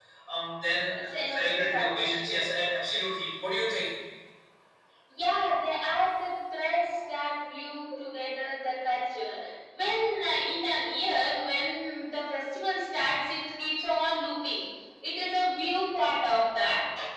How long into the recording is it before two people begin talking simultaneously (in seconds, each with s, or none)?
1.0 s